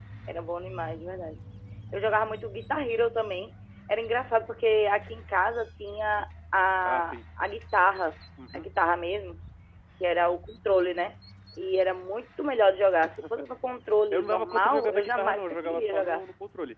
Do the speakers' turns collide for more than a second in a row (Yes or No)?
Yes